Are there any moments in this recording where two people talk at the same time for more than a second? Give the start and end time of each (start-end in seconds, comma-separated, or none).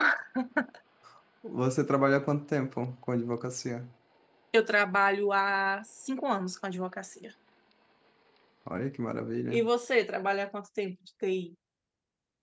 none